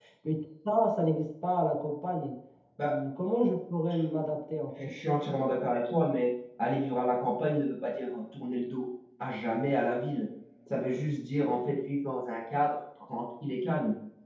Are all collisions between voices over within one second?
Yes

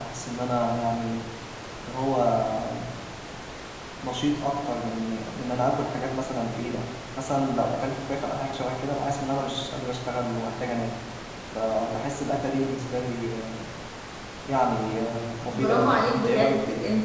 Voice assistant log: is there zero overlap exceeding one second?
No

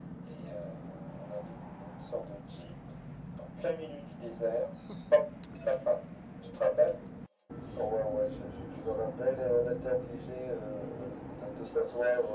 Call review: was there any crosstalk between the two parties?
No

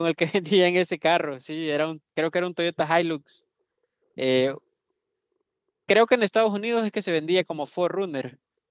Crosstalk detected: No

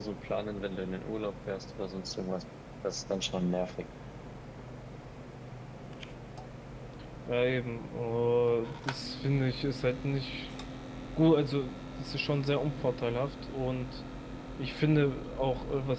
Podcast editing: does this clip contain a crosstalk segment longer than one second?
No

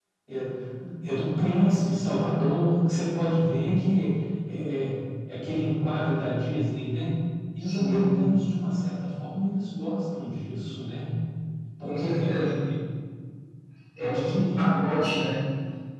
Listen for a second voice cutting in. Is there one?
Yes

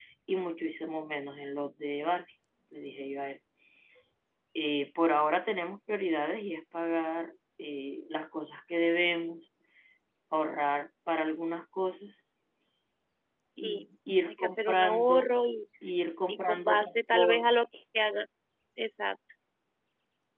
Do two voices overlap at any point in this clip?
Yes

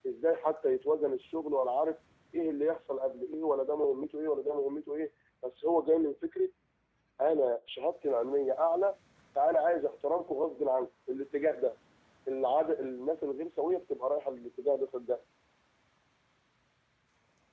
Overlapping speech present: No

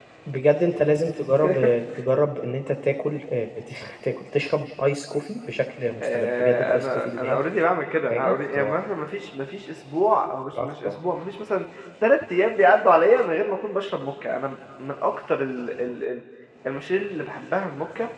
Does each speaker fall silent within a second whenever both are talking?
No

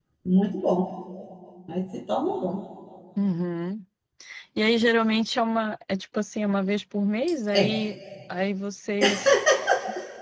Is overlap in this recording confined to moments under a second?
Yes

